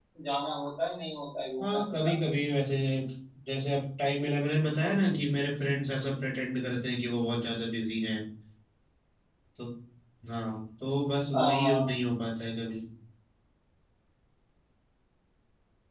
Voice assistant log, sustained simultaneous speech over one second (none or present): none